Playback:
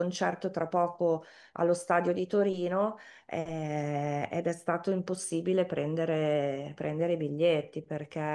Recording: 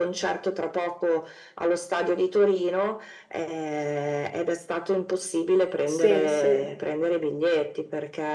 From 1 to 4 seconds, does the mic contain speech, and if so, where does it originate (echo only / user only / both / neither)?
echo only